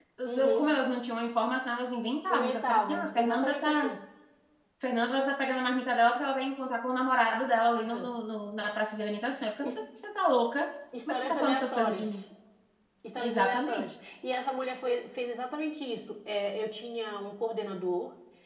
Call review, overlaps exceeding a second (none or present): present